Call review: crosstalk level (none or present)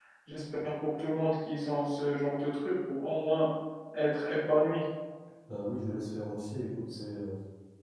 none